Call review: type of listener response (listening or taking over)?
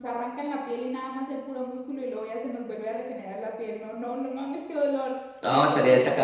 taking over